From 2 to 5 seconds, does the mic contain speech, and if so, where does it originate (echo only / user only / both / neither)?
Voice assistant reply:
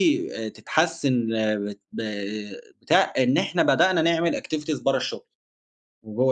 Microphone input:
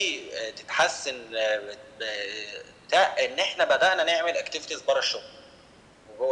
echo only